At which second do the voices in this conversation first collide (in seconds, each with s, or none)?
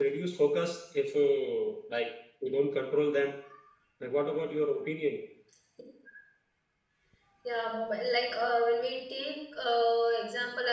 none